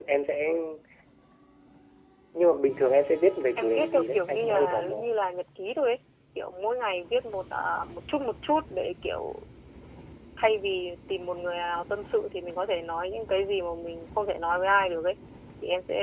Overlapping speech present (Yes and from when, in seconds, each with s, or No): Yes, from 3.6 s